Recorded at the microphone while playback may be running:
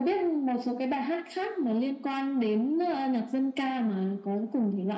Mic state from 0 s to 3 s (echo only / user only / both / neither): echo only